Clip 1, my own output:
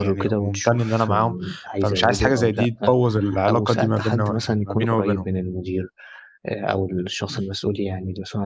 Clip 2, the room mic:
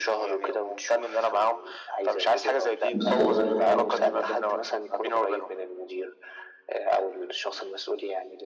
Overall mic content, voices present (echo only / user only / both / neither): both